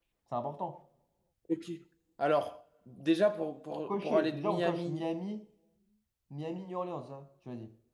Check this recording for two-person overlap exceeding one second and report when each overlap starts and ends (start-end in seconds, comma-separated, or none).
3.7-5.0